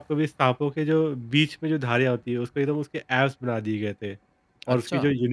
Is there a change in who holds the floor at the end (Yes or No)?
No